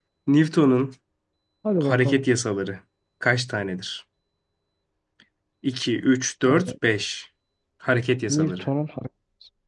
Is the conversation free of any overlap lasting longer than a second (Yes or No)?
Yes